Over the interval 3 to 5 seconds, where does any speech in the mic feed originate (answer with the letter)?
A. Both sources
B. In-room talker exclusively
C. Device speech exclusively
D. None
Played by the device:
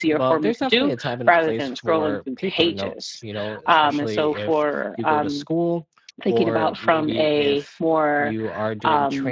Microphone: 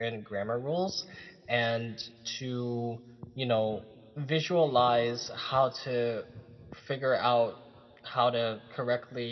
B